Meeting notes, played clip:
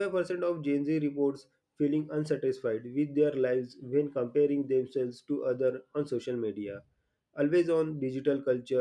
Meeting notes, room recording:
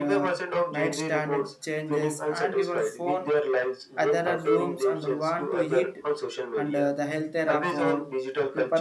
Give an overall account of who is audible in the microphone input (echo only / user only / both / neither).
both